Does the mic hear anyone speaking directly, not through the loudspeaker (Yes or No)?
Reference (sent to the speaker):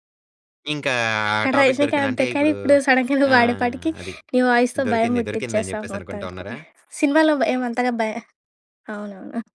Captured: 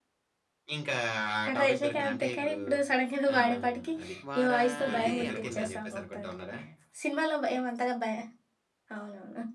Yes